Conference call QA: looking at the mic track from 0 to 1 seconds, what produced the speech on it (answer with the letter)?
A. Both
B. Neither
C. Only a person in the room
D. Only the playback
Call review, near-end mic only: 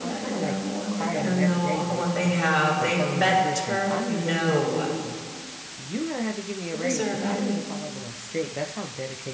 A